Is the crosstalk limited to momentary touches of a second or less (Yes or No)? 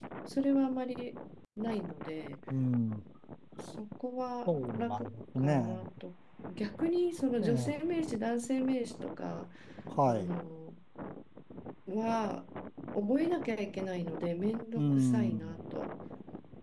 No